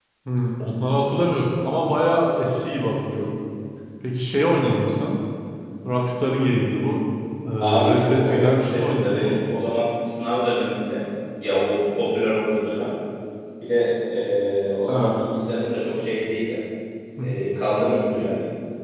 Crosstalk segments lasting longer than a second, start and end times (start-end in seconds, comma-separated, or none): 7.9-9.3